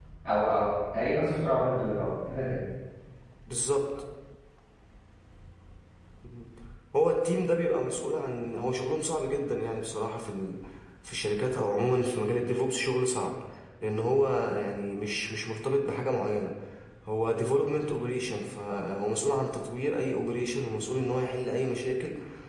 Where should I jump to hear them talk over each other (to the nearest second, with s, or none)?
none